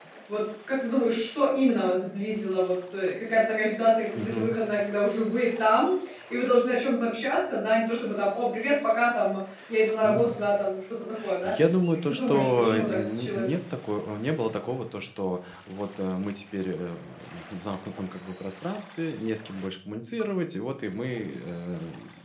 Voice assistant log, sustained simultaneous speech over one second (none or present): present